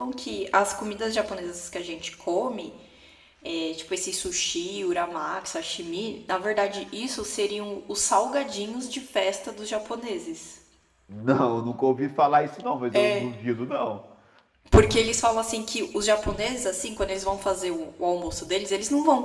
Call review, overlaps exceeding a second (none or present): none